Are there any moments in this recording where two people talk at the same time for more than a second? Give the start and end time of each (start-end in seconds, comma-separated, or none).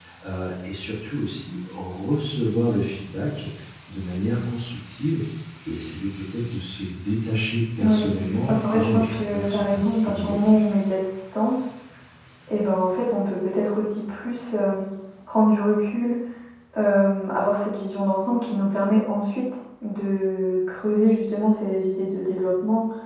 8.5-10.6